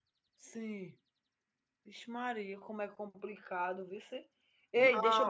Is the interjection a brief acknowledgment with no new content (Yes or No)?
Yes